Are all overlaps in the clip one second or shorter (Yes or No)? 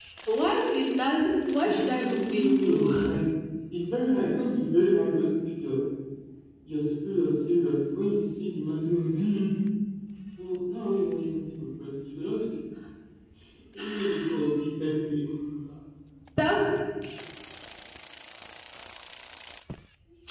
No